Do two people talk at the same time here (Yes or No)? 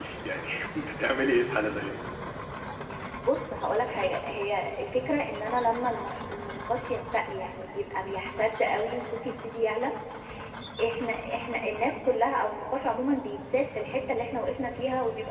No